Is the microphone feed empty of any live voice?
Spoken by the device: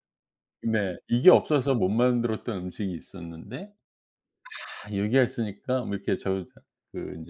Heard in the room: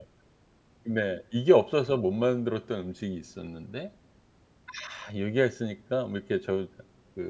Yes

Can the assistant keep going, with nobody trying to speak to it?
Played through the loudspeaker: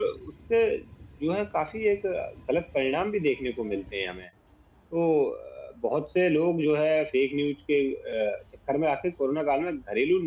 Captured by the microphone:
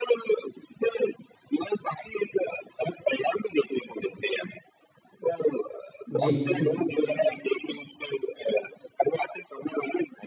No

